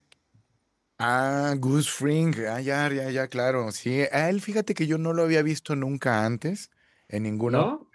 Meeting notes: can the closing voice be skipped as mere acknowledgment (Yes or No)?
Yes